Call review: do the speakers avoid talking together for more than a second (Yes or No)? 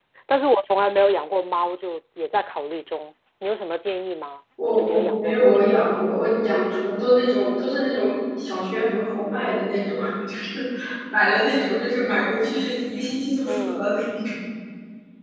No